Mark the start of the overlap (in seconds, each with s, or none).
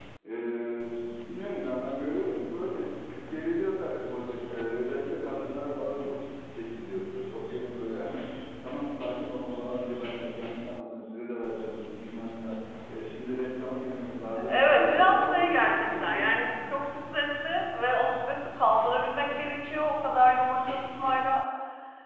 14.4 s